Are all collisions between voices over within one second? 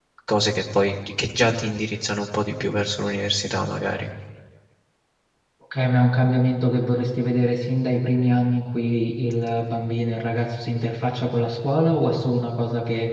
Yes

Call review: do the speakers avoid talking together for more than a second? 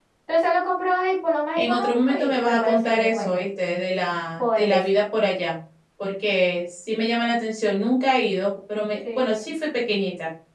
No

